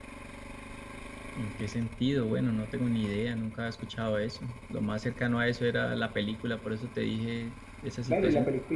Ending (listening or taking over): taking over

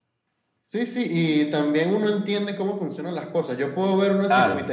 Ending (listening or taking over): listening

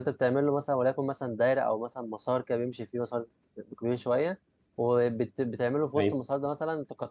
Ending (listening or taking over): listening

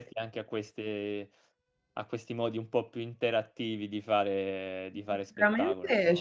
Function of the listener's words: taking over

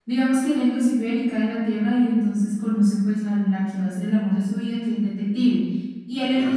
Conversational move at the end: listening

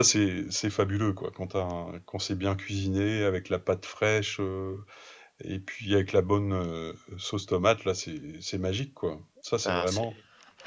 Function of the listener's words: taking over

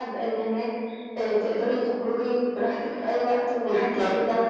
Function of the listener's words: taking over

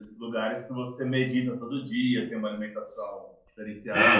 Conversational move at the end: taking over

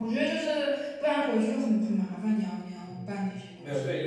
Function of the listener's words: taking over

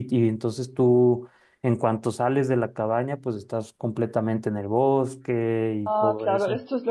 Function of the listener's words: taking over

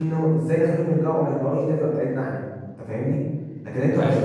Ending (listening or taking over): listening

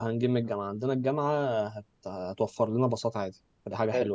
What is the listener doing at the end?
taking over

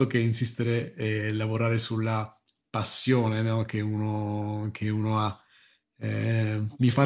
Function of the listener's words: listening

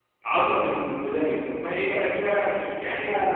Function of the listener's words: taking over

